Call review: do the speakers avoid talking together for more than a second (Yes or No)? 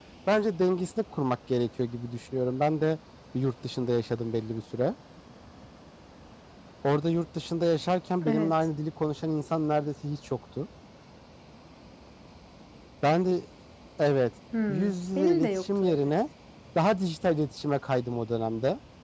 No